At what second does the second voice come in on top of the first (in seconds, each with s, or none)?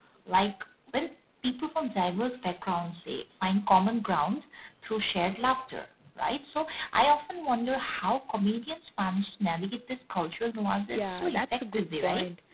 10.9 s